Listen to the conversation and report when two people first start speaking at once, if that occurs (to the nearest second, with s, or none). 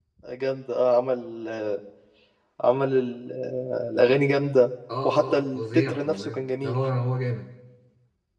5 s